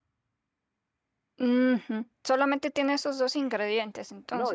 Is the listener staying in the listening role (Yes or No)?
No